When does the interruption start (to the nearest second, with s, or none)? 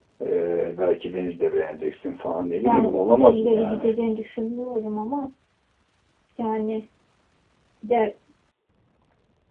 3 s